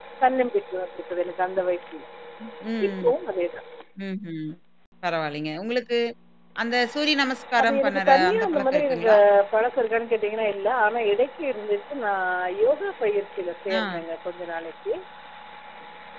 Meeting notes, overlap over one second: present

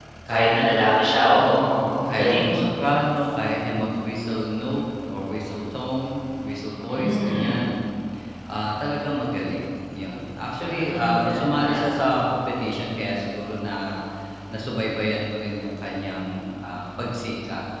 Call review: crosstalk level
present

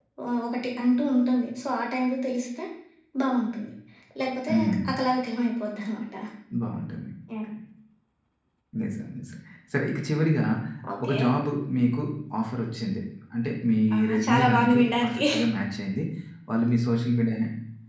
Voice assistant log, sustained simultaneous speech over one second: present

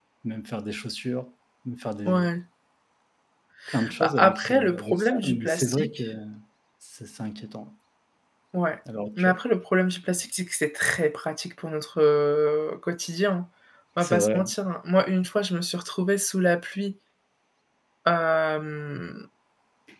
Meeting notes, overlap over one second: present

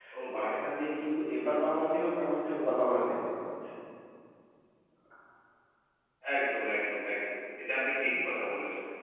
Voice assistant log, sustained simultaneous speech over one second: none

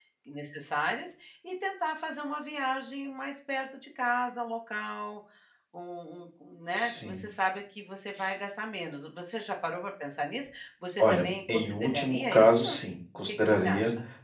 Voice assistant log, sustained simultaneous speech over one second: present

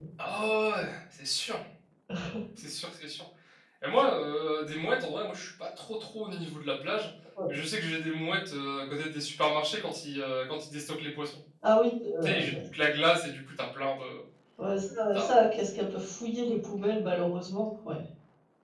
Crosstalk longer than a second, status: none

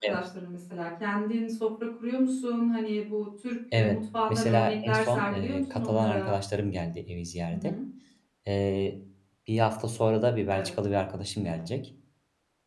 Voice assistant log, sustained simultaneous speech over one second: present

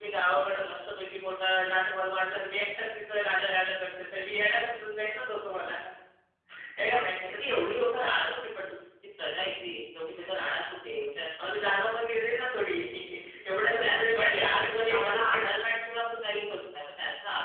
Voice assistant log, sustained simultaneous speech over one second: present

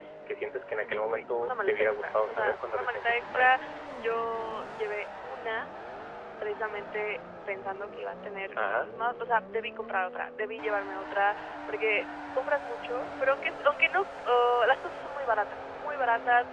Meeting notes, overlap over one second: present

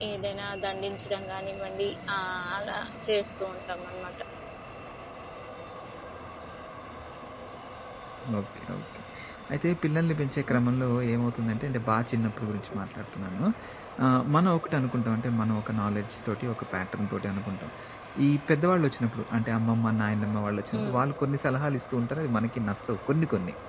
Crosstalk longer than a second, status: none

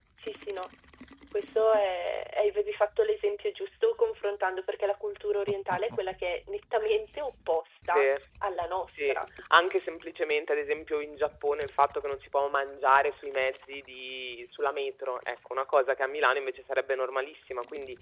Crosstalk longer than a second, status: none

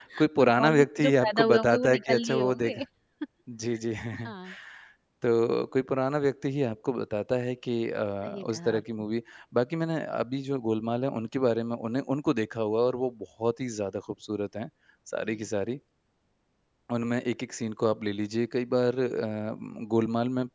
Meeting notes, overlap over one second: present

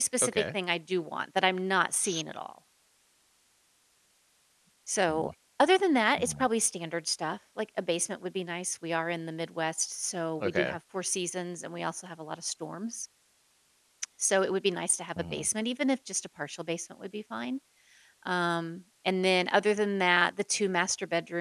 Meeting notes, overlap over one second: none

